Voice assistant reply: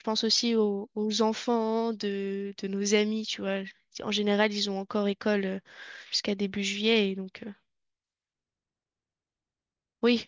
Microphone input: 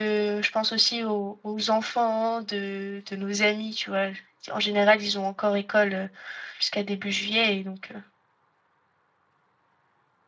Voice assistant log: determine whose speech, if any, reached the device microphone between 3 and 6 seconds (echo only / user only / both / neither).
echo only